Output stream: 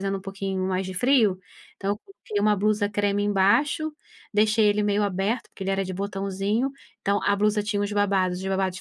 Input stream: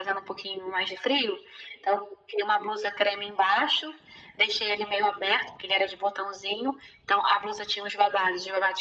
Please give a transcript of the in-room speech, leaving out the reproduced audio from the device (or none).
none